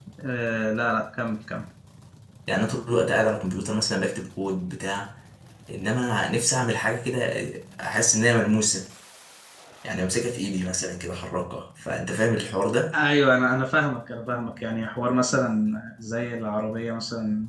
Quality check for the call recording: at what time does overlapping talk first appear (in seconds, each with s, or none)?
none